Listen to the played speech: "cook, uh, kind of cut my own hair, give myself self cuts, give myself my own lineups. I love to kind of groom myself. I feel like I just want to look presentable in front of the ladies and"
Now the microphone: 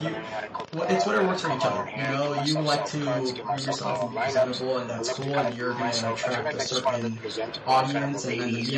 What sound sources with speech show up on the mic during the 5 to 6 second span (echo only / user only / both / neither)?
both